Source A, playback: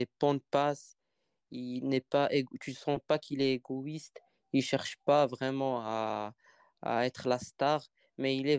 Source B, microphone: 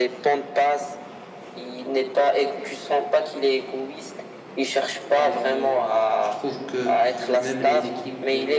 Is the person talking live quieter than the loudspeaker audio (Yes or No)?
Yes